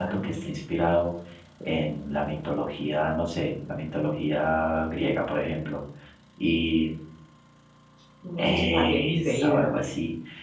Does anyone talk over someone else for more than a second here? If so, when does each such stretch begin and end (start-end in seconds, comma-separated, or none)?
8.4-9.7